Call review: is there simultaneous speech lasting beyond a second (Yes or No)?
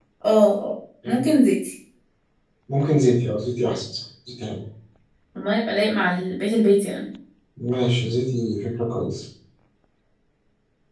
No